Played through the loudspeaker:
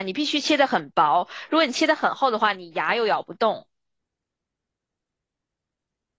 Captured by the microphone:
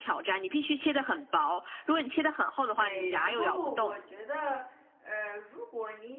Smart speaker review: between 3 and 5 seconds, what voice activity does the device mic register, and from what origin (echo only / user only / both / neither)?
both